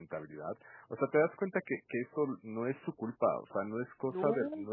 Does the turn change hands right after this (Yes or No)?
No